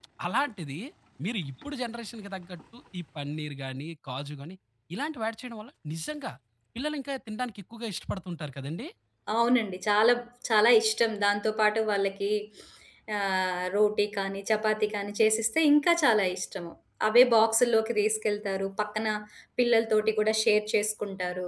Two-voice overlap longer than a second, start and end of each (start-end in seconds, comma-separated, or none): none